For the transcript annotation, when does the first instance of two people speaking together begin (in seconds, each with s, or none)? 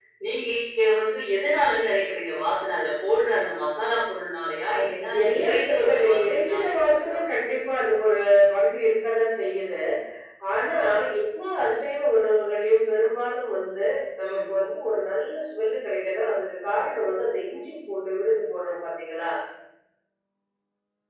4.8 s